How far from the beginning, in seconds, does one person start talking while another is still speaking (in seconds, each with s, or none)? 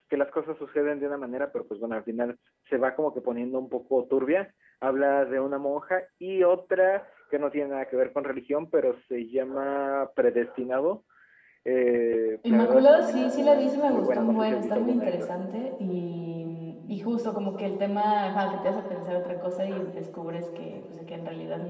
12.5 s